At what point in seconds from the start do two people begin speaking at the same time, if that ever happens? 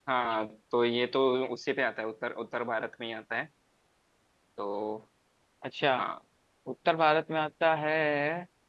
none

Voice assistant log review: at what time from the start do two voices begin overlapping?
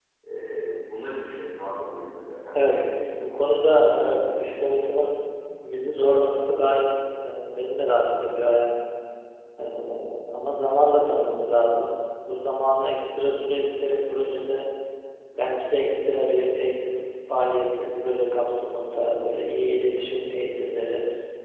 2.5 s

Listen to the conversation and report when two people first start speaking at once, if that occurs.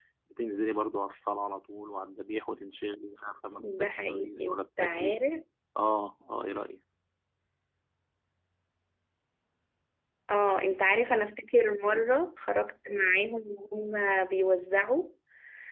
3.6 s

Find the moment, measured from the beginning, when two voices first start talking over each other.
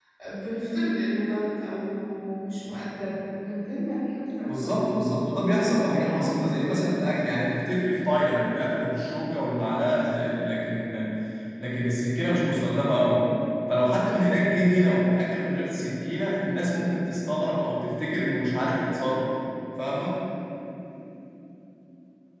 4.5 s

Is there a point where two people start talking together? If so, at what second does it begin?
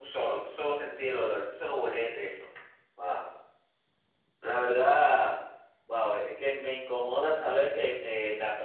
none

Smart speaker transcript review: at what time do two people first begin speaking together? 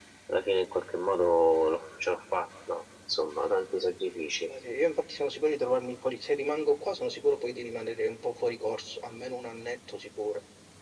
none

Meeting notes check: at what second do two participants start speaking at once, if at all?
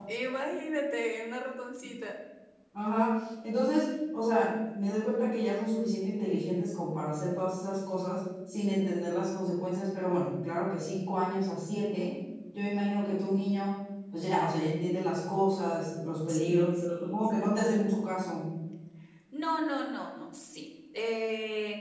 16.3 s

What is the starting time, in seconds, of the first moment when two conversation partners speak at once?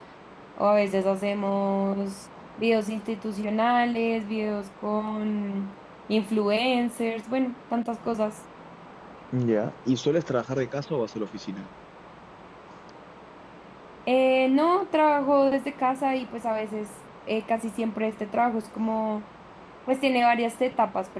none

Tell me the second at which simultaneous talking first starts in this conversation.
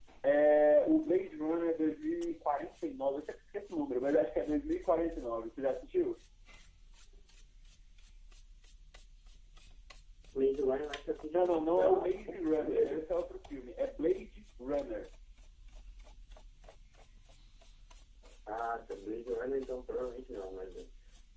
11.3 s

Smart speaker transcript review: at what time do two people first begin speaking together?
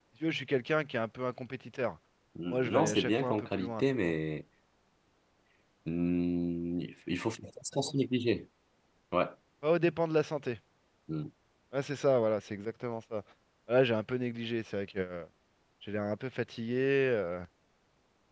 2.5 s

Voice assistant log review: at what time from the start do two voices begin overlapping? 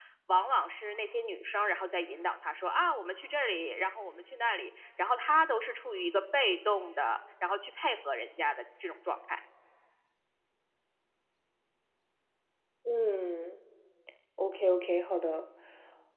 none

